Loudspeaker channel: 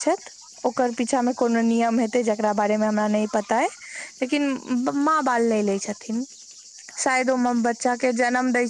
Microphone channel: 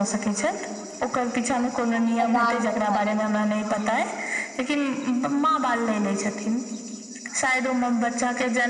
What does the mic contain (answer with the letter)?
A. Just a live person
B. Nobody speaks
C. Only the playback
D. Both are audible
D